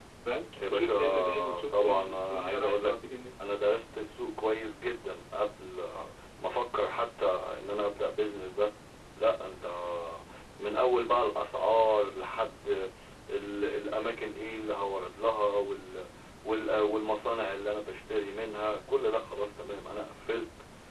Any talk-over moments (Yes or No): Yes